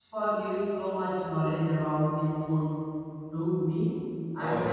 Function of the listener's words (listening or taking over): listening